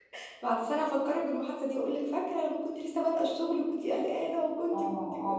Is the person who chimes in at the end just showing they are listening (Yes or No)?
No